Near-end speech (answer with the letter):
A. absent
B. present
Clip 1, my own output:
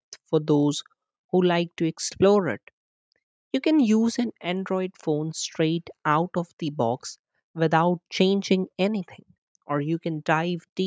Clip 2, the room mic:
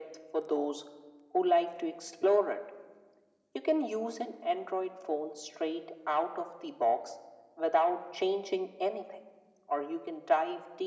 A